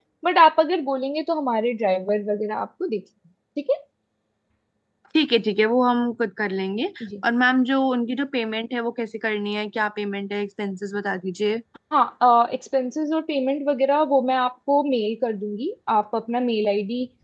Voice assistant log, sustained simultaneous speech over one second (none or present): none